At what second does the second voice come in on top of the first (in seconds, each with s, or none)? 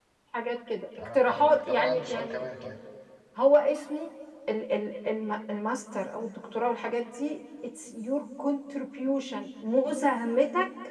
1.0 s